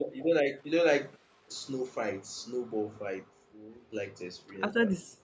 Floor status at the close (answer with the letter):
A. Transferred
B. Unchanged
A